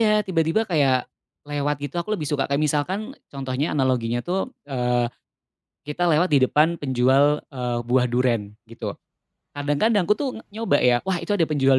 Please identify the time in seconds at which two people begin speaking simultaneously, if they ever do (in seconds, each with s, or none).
none